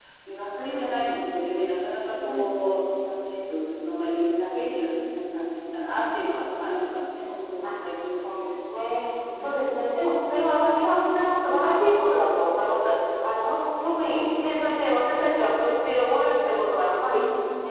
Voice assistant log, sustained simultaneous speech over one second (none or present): none